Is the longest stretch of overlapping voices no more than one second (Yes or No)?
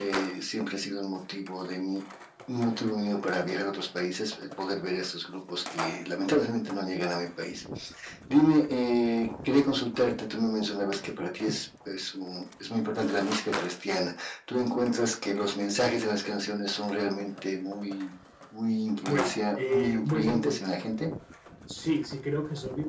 No